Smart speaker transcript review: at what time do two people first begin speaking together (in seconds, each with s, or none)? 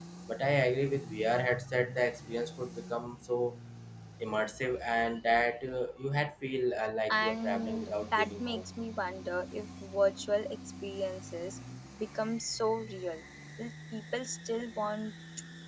7.1 s